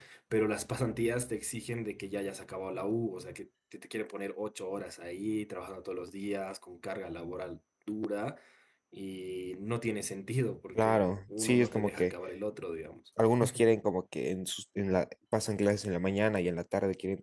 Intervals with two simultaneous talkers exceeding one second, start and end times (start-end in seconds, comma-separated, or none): 10.8-12.1